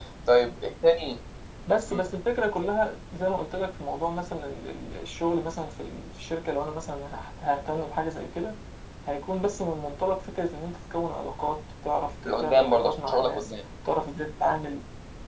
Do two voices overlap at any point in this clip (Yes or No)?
Yes